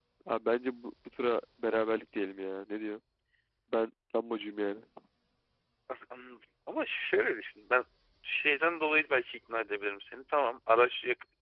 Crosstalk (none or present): none